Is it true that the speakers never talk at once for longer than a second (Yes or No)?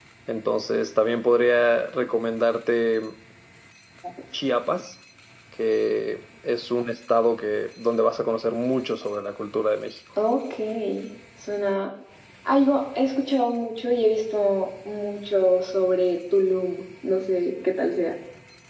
Yes